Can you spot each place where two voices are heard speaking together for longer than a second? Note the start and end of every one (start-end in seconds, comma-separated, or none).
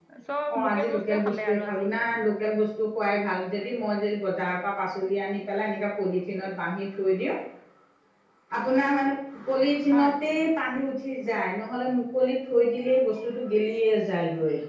0.5-1.9